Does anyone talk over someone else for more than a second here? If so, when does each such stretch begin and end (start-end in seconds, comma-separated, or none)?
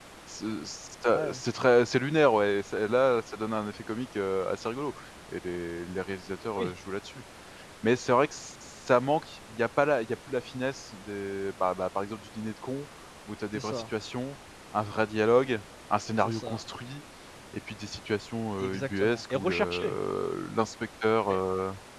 18.6-19.9